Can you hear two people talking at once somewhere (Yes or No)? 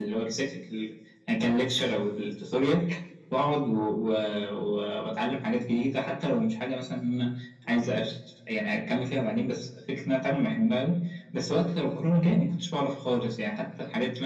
No